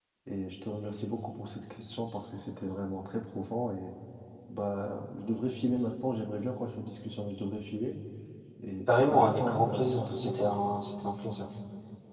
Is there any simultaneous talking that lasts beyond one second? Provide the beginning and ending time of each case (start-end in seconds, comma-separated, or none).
8.9-10.5